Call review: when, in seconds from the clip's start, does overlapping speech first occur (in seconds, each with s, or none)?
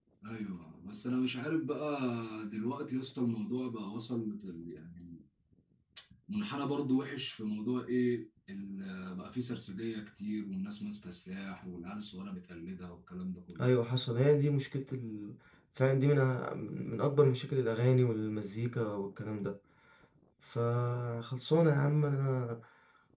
none